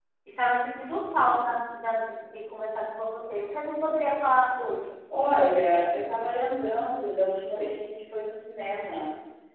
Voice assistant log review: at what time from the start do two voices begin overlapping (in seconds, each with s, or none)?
none